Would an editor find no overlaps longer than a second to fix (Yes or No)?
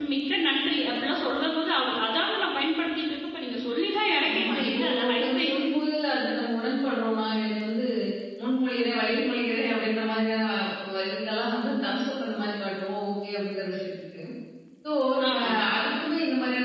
No